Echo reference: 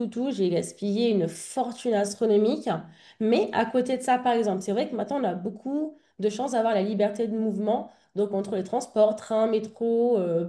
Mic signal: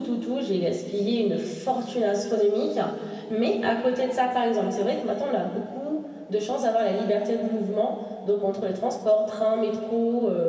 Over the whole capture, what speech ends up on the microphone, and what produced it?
echo only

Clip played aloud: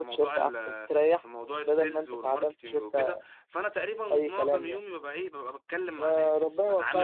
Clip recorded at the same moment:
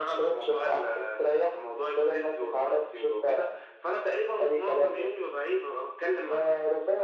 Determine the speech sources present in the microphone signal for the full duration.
echo only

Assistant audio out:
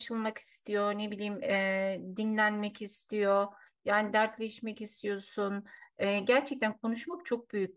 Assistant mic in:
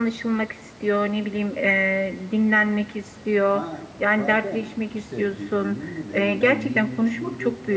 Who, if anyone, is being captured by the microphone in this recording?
both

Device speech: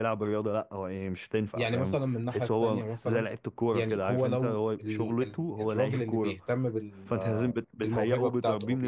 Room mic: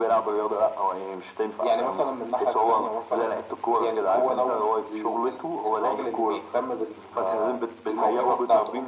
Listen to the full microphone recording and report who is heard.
echo only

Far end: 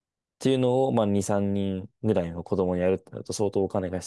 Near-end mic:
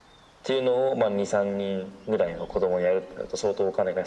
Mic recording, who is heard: echo only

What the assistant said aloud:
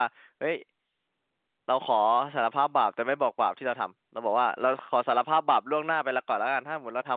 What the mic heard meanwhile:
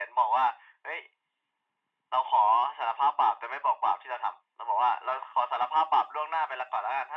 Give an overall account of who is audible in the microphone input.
echo only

